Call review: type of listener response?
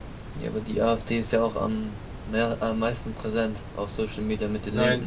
taking over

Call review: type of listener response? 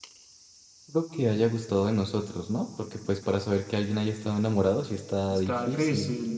taking over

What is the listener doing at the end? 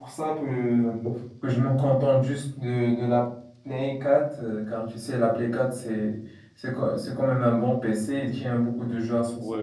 taking over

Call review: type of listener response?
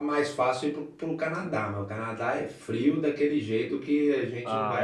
taking over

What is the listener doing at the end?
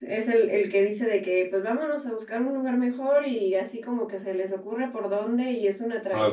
listening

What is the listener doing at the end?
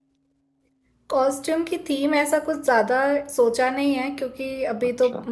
listening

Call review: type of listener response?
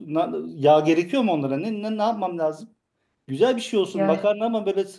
listening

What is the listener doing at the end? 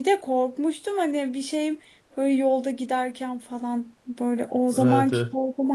listening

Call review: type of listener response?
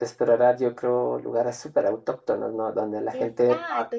taking over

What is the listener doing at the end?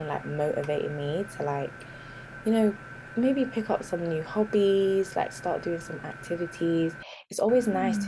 listening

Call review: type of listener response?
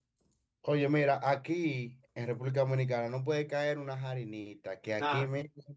listening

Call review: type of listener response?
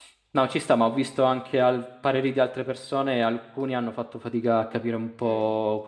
listening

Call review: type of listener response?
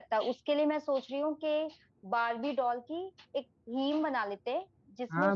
taking over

